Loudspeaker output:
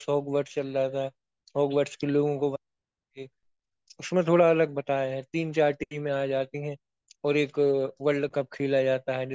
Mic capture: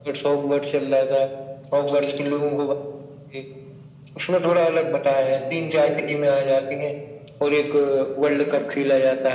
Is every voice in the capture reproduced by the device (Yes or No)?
Yes